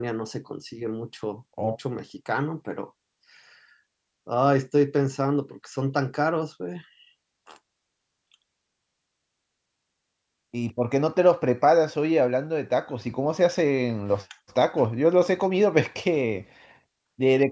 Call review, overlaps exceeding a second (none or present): none